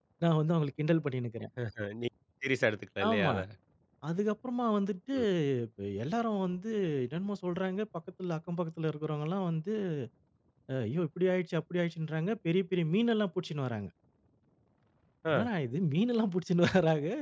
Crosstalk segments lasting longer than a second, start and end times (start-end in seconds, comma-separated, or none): none